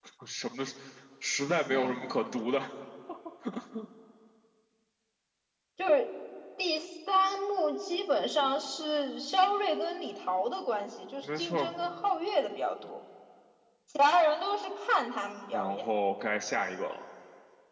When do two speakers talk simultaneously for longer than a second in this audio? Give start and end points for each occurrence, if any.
none

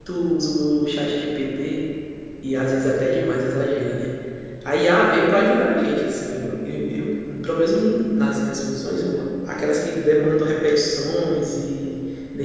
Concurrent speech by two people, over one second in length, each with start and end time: none

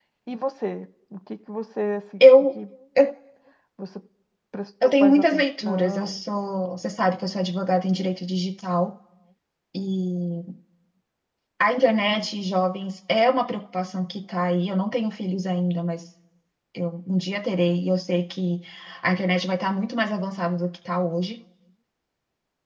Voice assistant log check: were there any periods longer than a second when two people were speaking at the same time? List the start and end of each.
5.0-6.2

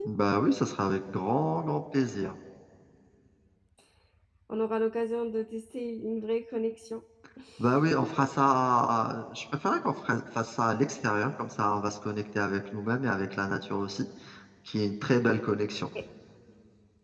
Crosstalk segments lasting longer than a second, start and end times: none

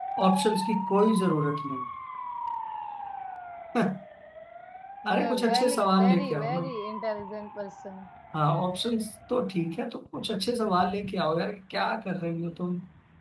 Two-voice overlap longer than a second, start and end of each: 5.1-6.6

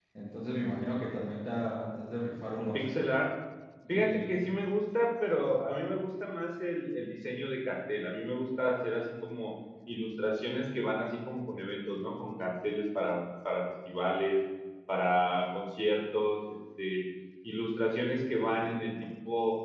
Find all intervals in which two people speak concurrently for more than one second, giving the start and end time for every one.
none

